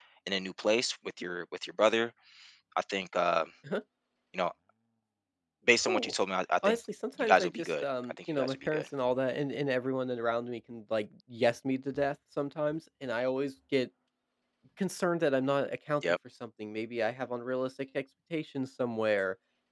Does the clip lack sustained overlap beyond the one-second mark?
No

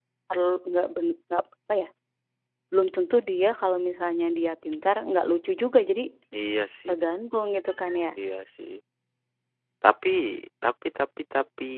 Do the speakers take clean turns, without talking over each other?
Yes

